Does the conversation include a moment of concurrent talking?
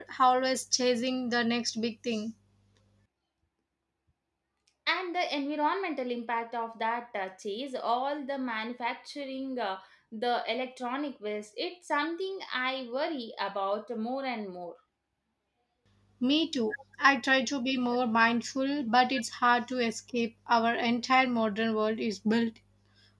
No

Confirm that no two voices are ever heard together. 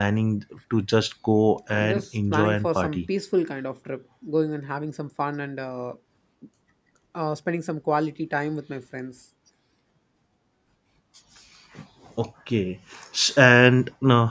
No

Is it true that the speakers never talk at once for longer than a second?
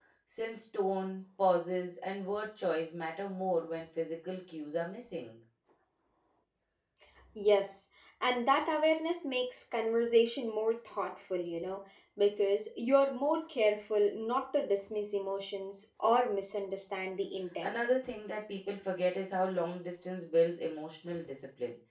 Yes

